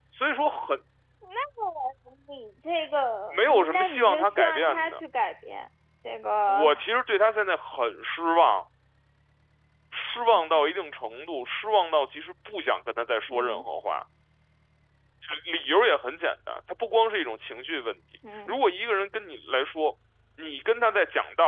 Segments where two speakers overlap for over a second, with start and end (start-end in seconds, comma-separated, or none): 3.3-5.0